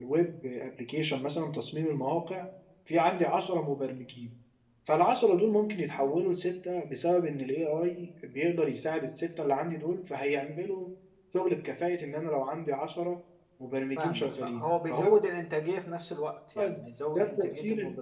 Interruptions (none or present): present